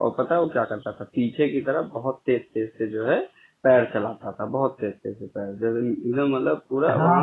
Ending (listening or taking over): taking over